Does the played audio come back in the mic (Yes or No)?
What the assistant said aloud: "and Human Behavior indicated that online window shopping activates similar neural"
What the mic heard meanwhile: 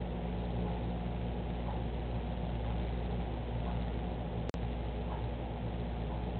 No